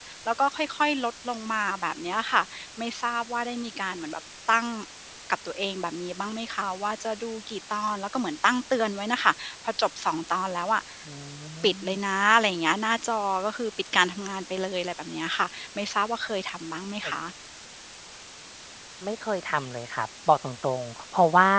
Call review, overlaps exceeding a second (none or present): none